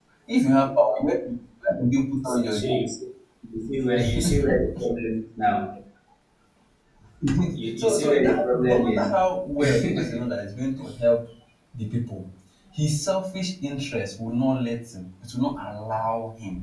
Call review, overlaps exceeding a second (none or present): present